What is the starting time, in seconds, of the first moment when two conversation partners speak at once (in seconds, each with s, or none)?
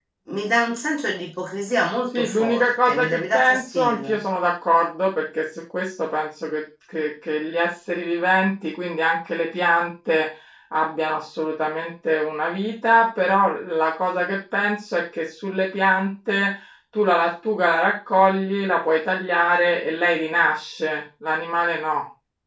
2.1 s